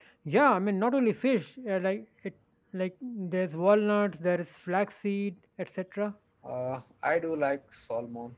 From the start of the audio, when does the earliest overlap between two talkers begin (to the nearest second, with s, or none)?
none